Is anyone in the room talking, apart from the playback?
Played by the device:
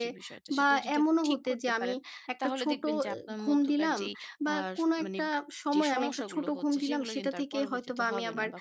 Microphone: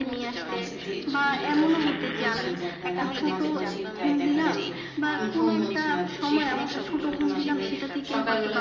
Yes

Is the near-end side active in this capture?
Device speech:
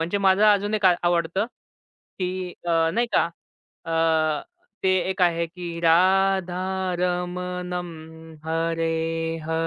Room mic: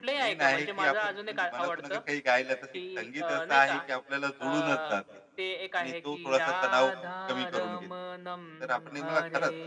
Yes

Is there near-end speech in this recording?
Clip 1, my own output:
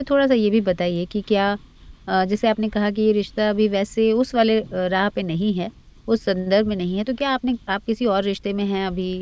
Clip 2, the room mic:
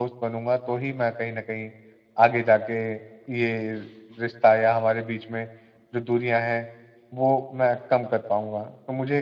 Yes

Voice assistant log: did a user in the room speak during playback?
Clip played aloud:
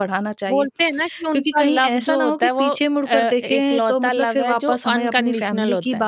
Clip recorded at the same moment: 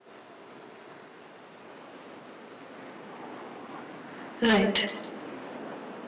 Yes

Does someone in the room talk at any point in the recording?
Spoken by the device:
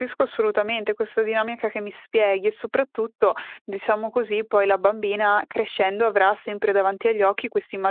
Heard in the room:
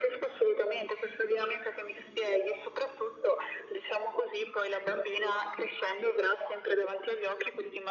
No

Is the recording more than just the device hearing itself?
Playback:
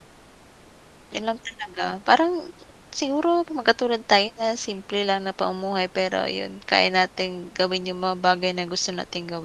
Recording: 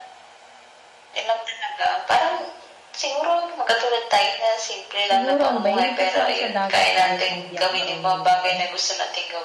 Yes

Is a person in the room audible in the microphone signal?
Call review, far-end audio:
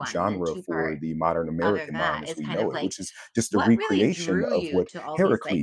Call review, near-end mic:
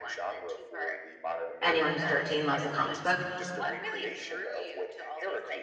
Yes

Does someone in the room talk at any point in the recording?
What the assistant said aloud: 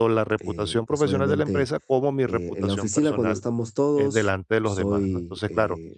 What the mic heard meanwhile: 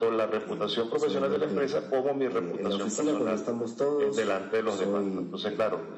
No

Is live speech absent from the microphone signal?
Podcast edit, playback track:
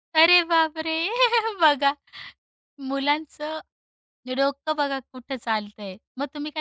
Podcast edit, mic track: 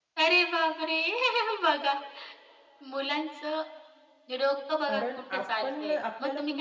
No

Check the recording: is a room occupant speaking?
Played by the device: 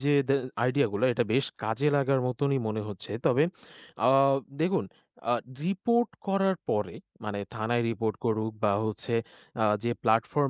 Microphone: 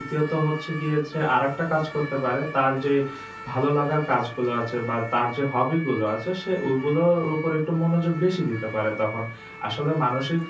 Yes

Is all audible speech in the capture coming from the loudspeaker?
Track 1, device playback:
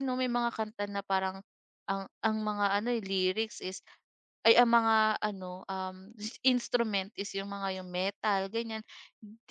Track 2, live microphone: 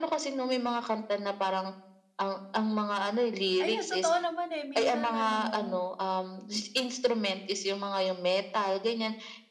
No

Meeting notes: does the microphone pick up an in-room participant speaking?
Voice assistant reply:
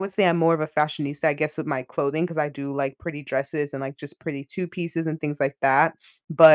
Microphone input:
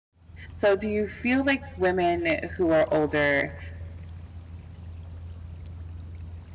Yes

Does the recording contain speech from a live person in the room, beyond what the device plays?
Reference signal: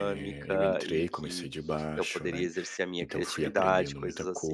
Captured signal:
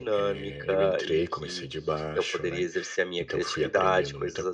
No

